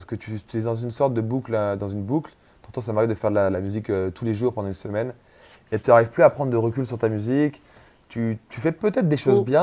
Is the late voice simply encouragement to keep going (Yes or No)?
Yes